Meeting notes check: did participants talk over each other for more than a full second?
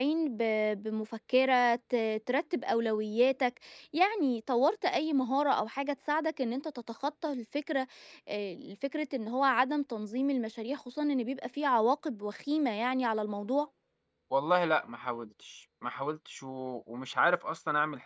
No

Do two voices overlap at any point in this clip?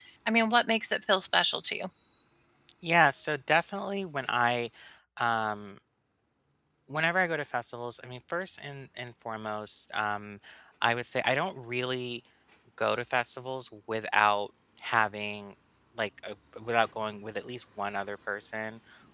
No

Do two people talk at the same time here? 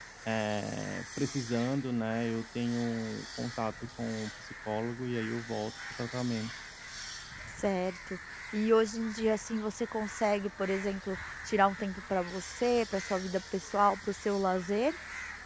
No

